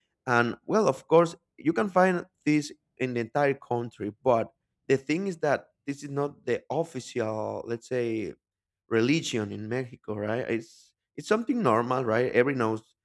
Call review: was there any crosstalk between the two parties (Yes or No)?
No